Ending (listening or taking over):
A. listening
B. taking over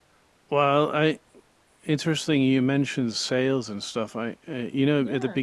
A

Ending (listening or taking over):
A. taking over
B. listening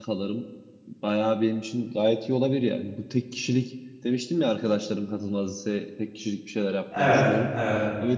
B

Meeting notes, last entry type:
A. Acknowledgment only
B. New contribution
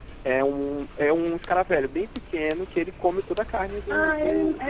B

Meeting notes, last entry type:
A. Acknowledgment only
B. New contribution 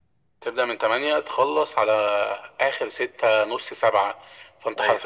A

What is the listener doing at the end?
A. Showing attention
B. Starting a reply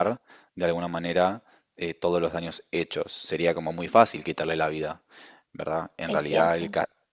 A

